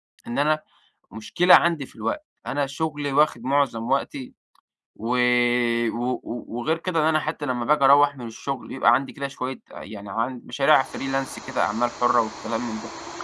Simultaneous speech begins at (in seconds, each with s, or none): none